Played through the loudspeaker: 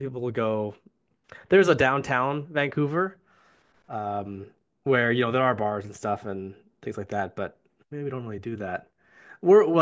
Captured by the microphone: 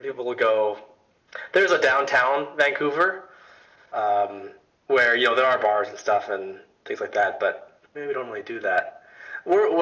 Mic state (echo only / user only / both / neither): echo only